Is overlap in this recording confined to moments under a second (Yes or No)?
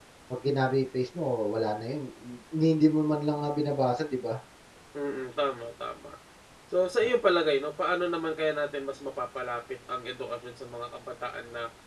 Yes